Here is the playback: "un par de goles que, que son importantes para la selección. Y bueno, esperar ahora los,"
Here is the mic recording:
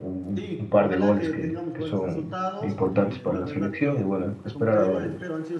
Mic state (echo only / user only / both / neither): both